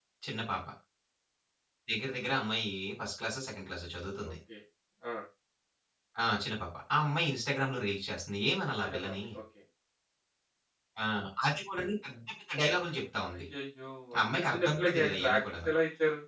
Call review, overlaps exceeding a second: present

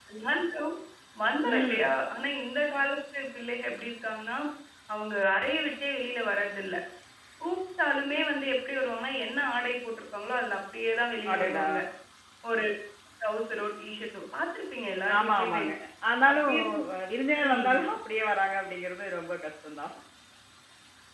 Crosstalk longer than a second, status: none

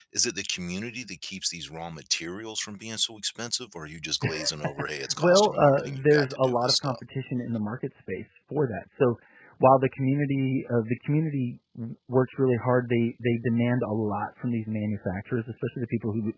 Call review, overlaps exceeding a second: present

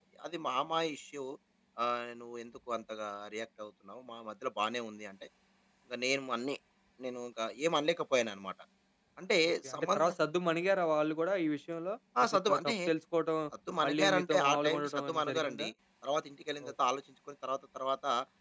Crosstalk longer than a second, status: present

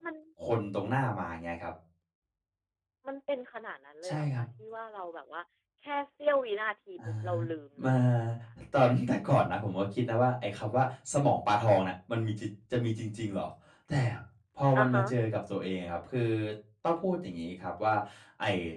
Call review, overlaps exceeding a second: none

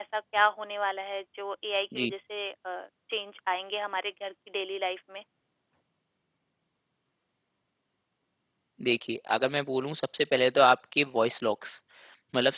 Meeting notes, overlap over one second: none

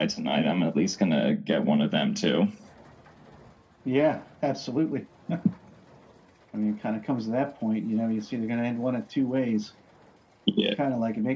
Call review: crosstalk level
none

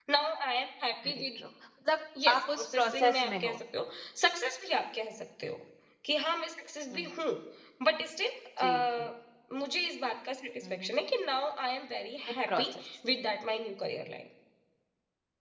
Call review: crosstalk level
present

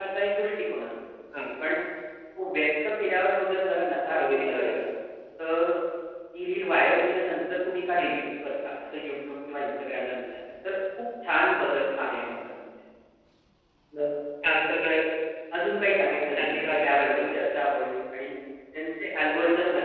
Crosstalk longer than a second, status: present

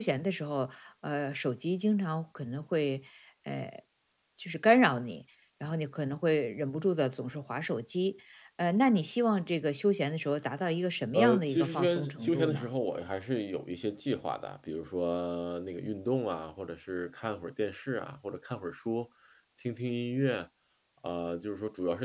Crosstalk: present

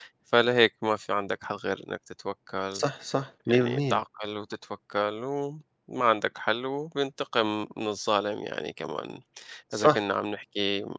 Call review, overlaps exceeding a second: none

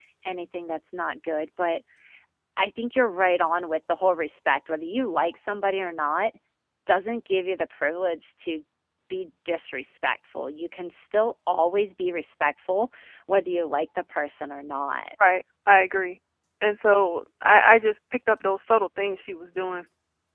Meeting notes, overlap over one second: none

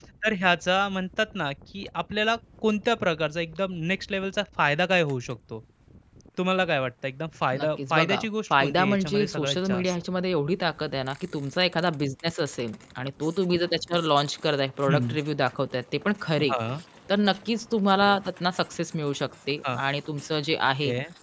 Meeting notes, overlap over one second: present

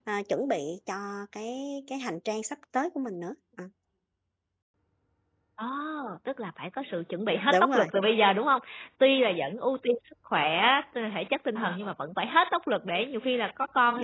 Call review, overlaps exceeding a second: none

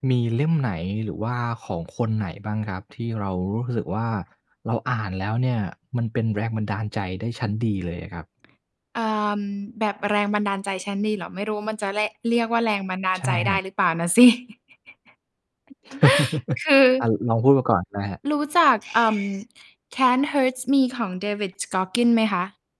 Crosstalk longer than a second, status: none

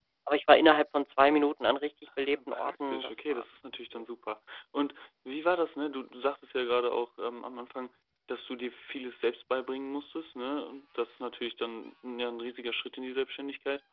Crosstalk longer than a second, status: present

